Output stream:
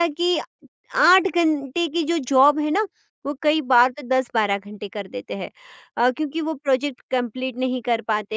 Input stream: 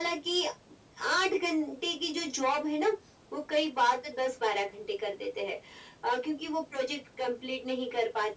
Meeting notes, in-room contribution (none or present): none